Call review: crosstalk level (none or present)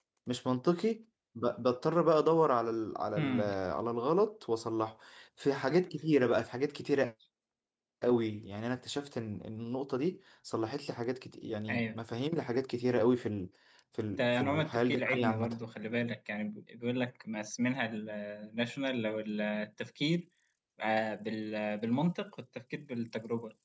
present